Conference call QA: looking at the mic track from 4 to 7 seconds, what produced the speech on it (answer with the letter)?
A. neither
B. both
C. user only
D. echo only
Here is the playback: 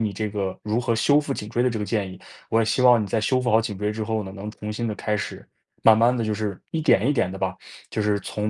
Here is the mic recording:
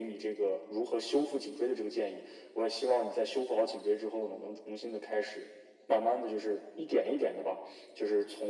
D